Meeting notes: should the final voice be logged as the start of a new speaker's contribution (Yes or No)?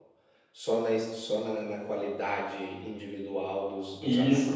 Yes